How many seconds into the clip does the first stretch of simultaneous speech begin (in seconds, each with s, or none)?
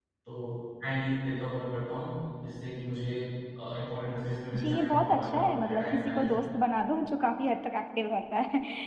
4.5 s